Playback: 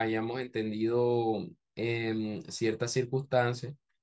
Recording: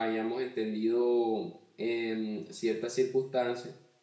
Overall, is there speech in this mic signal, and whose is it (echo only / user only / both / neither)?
echo only